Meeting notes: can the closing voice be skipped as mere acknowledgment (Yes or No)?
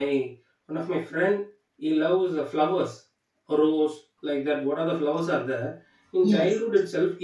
Yes